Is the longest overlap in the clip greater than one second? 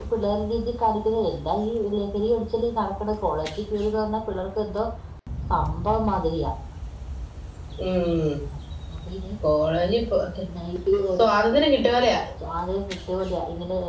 No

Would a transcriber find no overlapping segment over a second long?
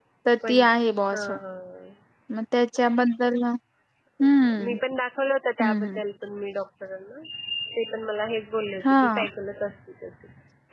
Yes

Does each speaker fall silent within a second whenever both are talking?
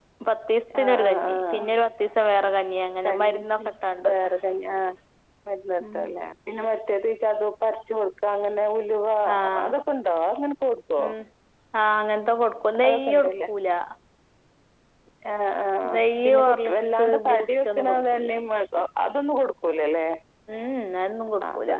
No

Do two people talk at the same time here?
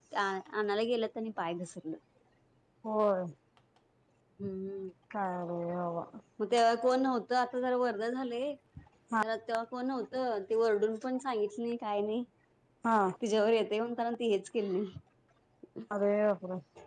No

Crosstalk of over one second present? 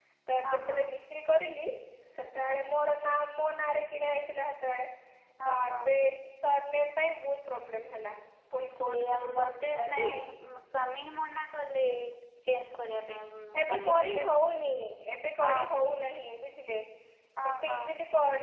Yes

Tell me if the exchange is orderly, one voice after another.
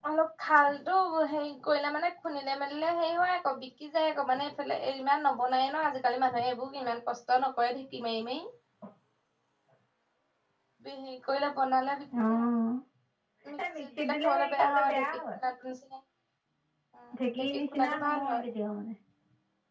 No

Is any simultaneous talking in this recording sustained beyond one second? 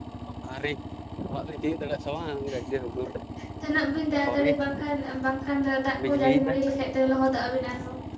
No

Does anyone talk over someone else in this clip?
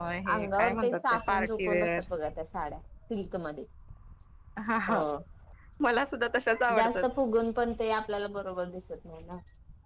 Yes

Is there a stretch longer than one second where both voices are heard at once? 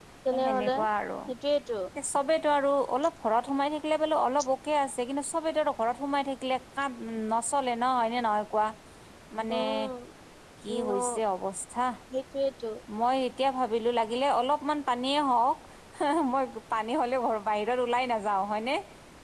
No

